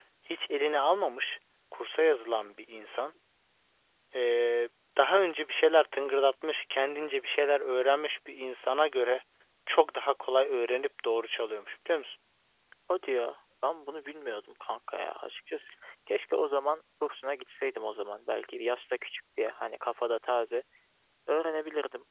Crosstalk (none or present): none